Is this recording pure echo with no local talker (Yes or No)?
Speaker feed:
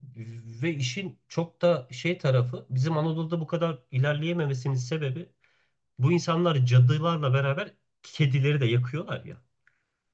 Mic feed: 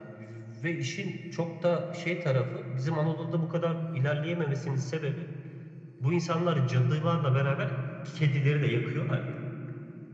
Yes